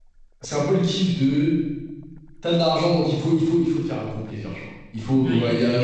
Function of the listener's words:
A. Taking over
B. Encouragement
B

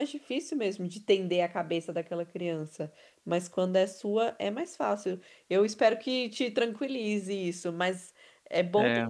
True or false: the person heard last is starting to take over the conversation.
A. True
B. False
B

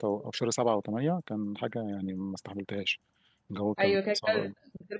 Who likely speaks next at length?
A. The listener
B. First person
A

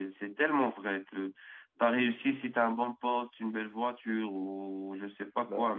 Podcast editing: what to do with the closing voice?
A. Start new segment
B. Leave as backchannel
B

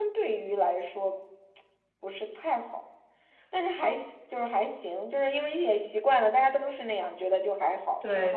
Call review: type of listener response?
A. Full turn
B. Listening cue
A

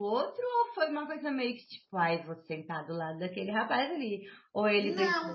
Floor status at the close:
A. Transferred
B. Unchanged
A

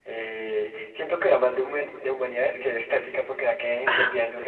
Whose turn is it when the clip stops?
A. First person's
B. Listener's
A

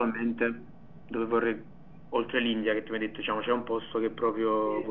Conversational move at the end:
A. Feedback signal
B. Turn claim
A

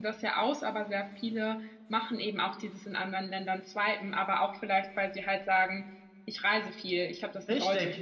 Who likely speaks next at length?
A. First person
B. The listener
B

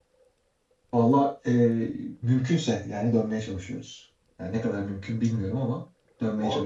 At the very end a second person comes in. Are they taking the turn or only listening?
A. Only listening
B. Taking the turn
B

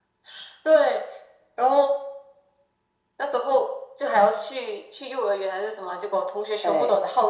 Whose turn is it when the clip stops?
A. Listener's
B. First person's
B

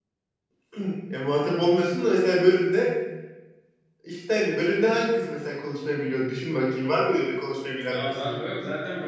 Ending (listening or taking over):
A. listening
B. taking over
B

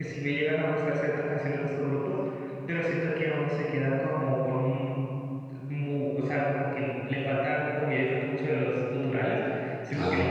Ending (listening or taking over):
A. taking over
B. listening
B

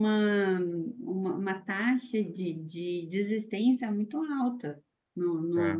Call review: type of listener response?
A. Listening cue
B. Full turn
A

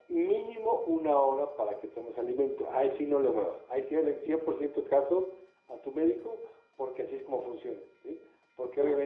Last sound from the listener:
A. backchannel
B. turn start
A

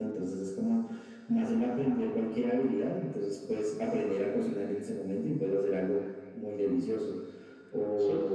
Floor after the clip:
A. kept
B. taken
B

